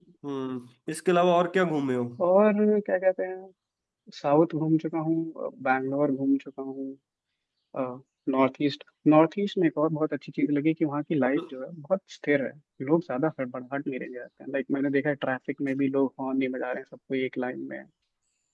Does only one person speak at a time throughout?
Yes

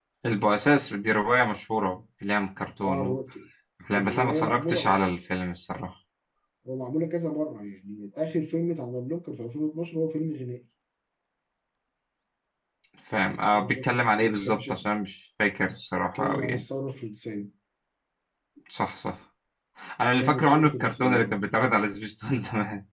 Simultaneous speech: Yes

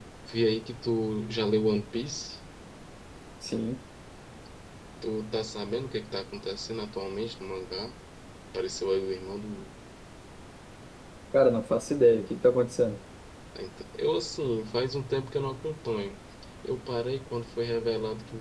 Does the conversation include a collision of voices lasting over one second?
No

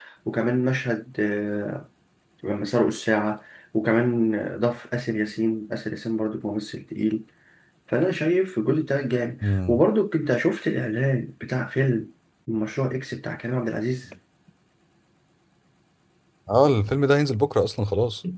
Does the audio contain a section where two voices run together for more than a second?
No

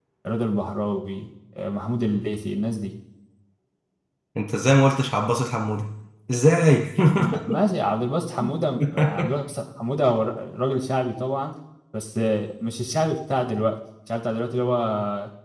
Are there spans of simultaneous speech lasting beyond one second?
No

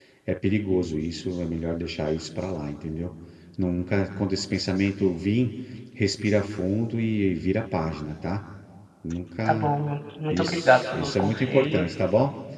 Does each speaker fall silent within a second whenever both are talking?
No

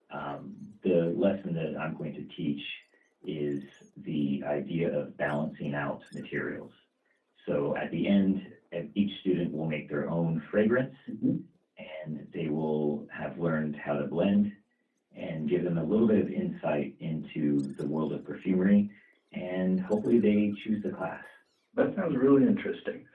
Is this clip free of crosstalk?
Yes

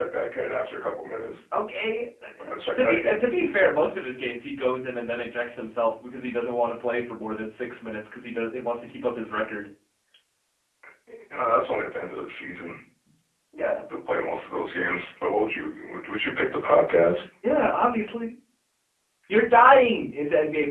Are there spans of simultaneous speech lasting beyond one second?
No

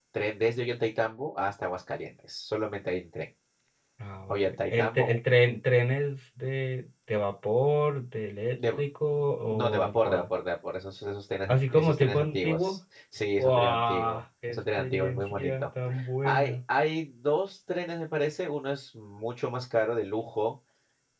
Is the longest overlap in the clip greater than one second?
Yes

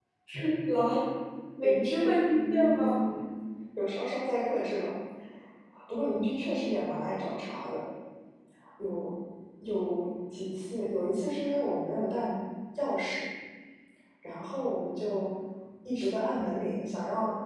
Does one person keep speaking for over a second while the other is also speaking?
Yes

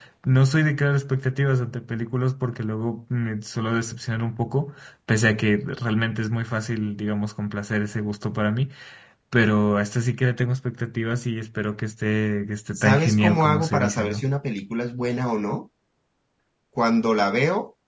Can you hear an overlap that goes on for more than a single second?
Yes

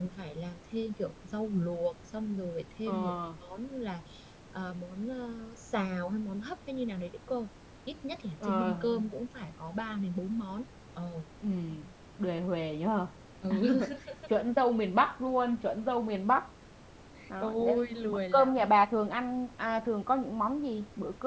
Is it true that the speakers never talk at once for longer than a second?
No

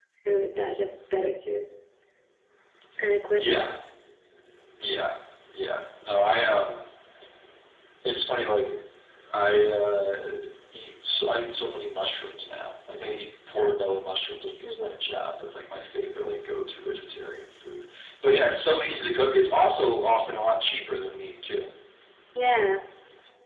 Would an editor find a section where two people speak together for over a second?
No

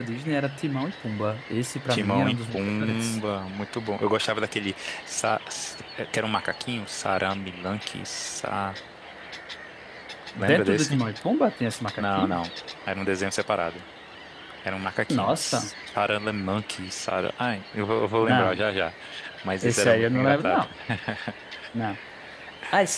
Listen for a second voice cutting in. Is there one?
Yes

